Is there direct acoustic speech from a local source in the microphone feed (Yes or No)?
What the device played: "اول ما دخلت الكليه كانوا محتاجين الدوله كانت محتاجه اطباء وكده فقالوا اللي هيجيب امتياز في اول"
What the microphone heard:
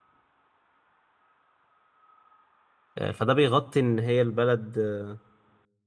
Yes